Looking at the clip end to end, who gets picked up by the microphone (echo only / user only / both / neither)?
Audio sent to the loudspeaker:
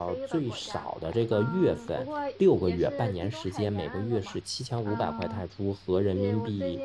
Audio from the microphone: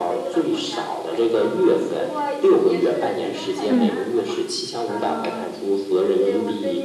both